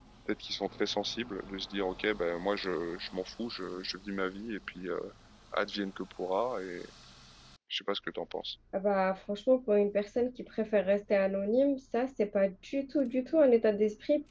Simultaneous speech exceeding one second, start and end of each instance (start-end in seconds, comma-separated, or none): none